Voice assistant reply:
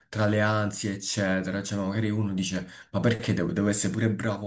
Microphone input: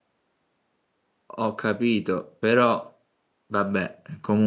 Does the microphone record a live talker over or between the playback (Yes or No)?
Yes